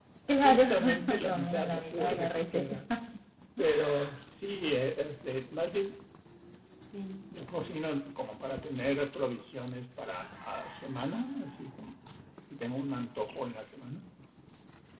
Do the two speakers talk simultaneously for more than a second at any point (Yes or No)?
Yes